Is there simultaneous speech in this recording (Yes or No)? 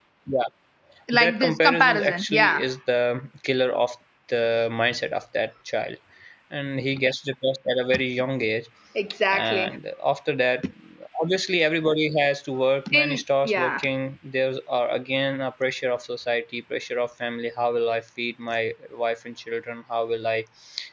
Yes